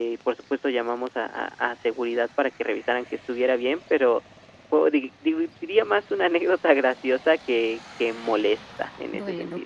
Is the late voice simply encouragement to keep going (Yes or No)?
No